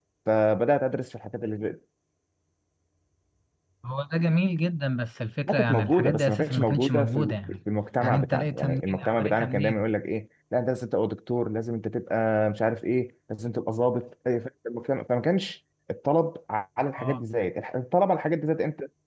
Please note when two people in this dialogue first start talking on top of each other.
5.5 s

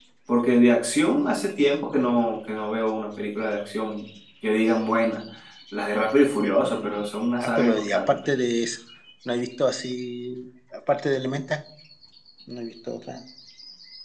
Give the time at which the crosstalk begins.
6.8 s

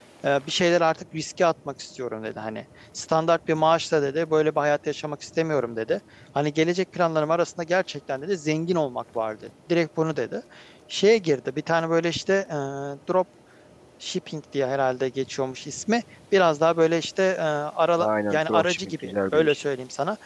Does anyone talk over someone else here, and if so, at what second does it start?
17.9 s

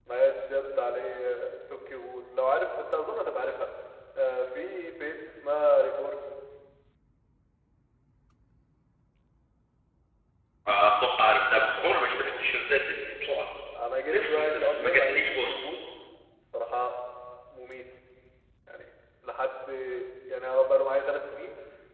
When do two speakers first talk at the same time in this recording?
14.1 s

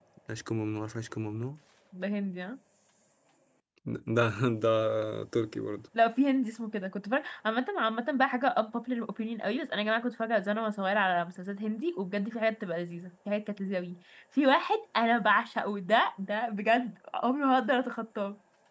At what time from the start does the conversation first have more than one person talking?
none

